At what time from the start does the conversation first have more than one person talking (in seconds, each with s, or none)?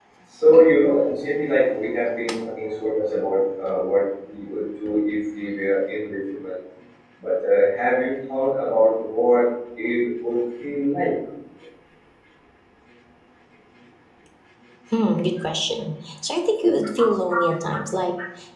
none